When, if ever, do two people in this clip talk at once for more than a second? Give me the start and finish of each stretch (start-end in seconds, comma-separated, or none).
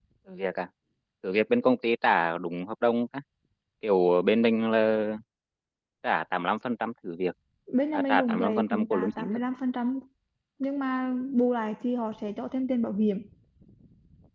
7.9-9.3